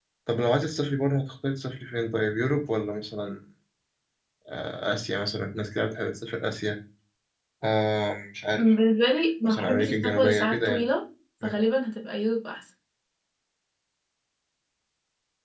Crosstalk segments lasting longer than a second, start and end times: 9.4-10.8

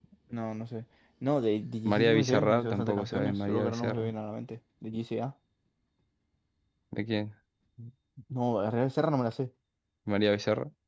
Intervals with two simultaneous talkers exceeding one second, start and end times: 1.9-4.1

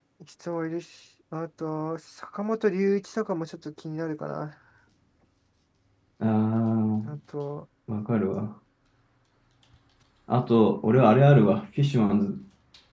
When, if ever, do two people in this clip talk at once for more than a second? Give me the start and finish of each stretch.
none

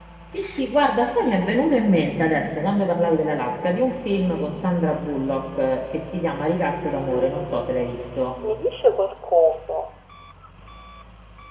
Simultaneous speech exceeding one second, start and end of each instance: 6.8-8.3

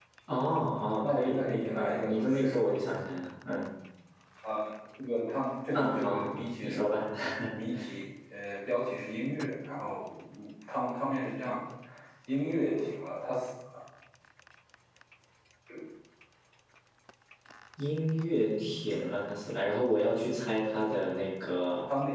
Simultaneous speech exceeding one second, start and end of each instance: 1.0-2.7, 5.7-7.0

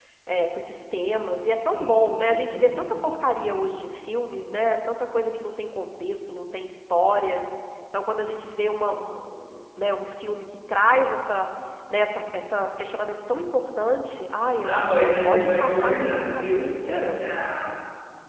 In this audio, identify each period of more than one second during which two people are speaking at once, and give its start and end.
1.6-3.0, 14.6-17.2

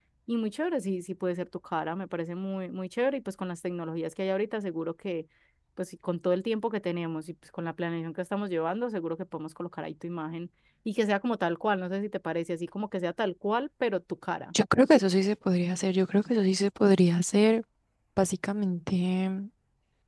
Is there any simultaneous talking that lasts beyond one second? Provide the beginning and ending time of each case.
none

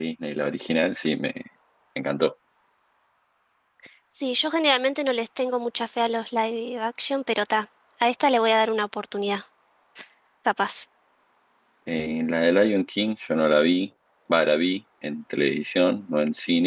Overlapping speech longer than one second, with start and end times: none

